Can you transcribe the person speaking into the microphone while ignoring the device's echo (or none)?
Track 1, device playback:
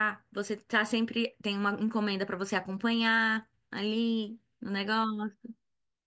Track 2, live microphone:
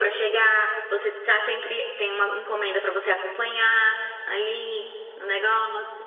none